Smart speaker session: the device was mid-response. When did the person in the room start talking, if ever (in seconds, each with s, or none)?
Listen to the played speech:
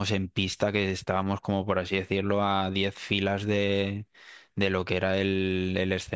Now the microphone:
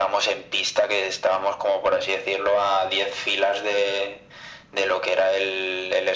none